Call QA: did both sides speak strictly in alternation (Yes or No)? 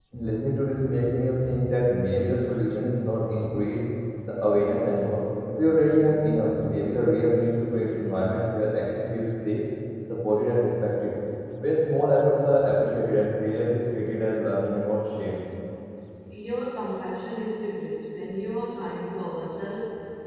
Yes